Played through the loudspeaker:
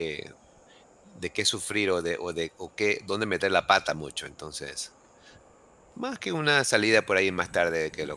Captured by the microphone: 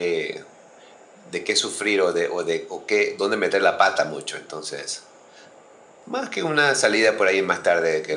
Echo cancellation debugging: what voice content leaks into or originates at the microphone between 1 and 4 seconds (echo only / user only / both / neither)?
echo only